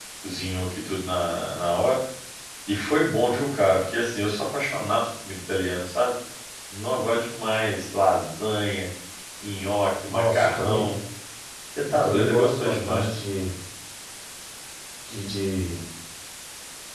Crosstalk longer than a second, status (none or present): present